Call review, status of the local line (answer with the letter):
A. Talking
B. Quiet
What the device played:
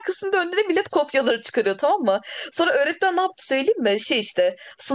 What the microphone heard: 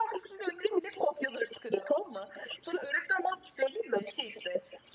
B